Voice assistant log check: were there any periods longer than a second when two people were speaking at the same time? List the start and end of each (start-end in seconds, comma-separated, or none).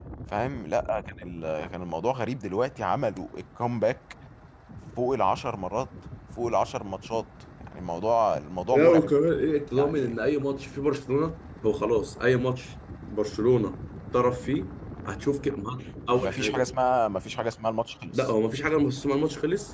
none